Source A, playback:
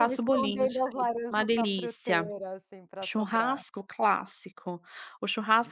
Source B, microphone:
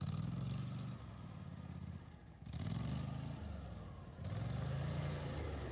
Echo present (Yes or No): No